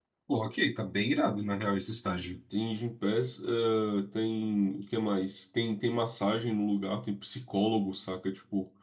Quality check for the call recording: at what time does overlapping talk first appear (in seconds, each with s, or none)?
none